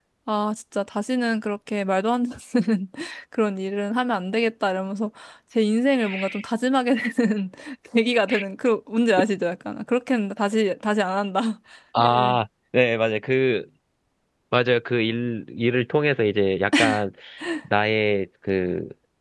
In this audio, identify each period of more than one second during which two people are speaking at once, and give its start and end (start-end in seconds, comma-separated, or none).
none